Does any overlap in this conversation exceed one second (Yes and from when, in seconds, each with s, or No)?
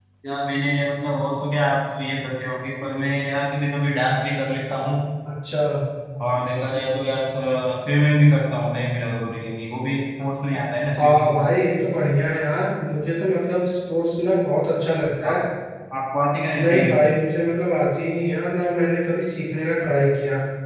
No